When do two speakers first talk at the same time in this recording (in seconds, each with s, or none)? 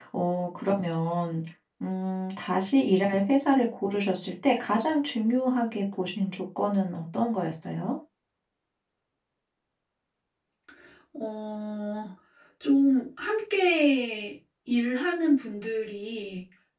none